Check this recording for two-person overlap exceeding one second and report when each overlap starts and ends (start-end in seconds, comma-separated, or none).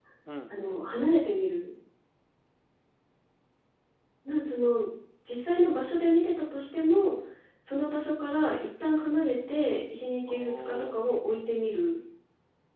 10.2-11.5